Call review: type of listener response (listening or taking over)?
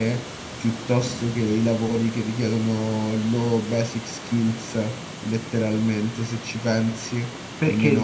taking over